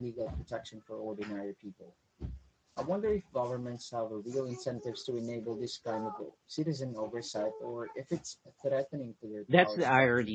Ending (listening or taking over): taking over